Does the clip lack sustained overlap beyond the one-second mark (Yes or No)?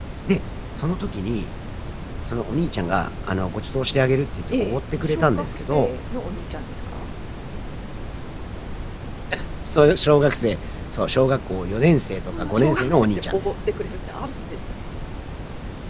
No